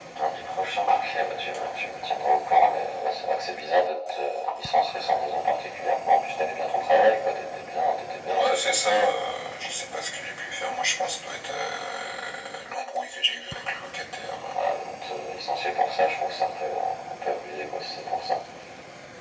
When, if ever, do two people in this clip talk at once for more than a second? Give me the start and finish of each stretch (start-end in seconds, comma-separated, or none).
none